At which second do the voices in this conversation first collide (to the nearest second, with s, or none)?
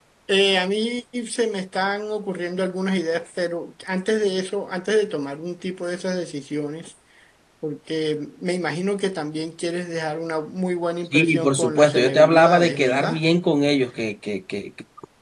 11 s